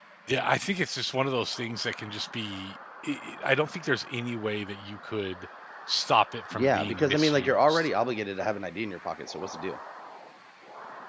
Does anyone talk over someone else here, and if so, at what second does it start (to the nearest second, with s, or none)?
7 s